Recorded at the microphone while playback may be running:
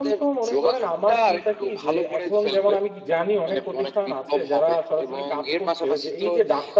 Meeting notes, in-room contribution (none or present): present